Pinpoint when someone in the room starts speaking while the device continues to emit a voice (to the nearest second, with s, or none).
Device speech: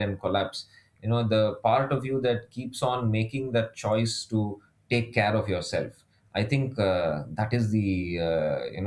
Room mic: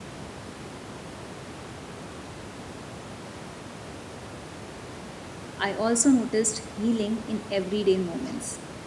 6 s